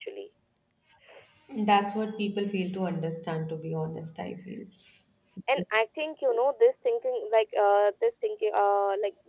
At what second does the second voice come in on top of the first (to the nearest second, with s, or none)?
none